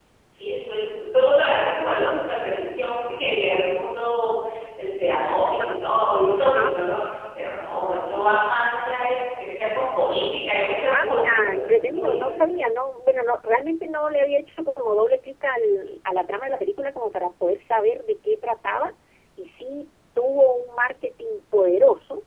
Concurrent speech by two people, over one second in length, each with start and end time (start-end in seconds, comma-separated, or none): 10.9-12.6